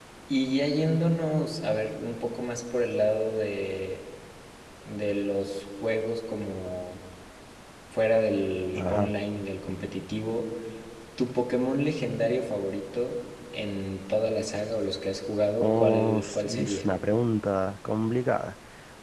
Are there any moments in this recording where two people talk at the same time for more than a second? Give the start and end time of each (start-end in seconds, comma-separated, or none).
15.6-16.9